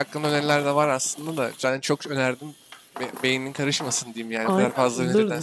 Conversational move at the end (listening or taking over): taking over